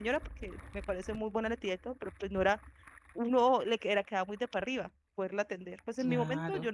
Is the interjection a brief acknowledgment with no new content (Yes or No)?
Yes